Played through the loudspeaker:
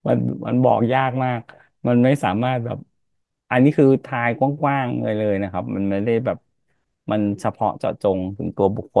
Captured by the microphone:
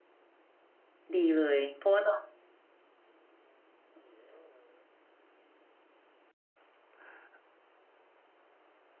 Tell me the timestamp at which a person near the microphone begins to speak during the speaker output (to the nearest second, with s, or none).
1 s